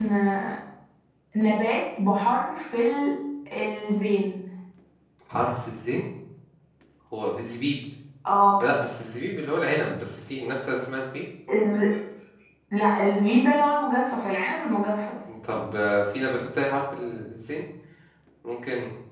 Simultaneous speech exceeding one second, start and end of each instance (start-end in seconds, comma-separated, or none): none